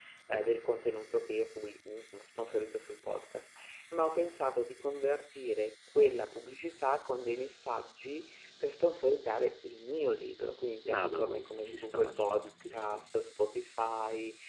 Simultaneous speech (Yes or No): Yes